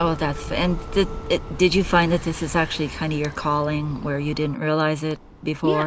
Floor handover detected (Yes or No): Yes